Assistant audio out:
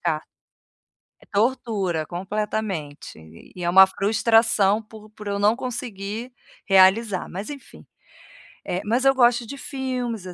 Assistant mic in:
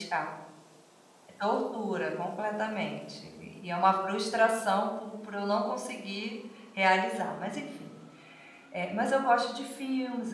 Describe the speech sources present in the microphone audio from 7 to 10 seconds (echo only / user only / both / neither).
echo only